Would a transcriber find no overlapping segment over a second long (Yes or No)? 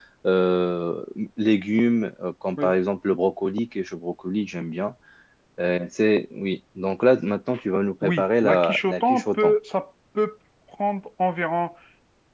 No